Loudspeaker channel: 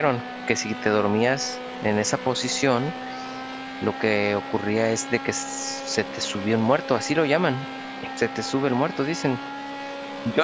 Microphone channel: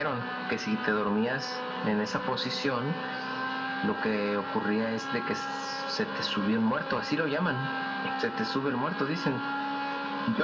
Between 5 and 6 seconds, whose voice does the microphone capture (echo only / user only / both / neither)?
echo only